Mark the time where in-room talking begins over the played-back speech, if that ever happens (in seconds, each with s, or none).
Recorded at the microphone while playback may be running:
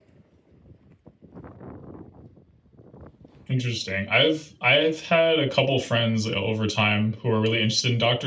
3.5 s